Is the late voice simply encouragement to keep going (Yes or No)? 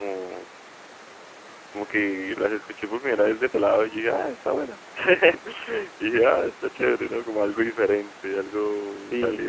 No